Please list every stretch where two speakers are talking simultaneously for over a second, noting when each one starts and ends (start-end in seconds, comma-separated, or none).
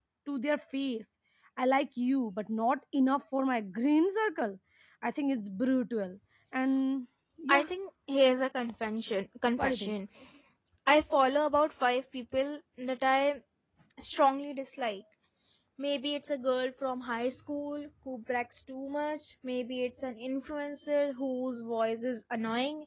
none